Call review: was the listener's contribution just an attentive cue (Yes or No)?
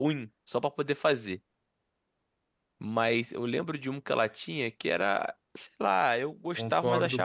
No